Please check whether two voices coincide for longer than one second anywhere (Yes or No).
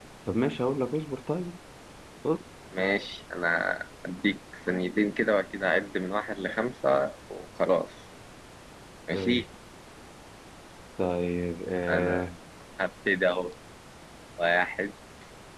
No